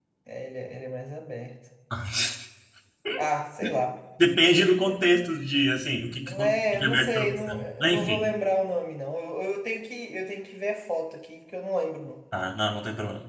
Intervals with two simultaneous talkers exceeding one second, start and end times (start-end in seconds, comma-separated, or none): 6.4-8.2